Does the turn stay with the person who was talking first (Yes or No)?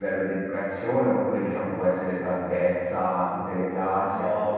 No